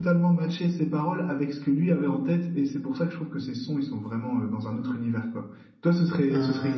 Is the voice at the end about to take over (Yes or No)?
No